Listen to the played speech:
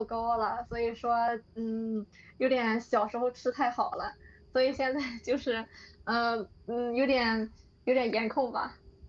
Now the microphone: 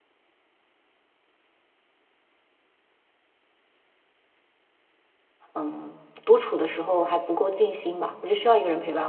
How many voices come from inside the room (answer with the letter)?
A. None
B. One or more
B